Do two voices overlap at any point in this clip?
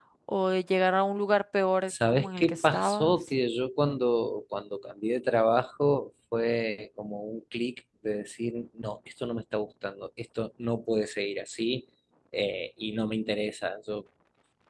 Yes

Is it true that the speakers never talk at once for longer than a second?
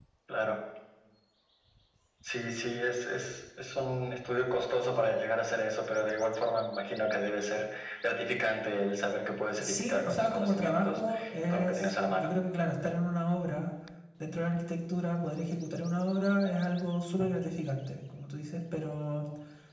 No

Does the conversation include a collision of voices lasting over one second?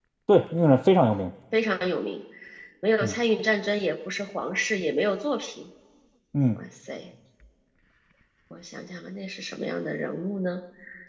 No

